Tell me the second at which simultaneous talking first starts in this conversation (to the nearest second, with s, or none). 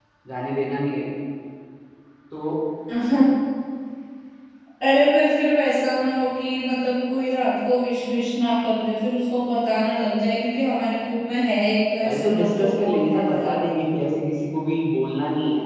12 s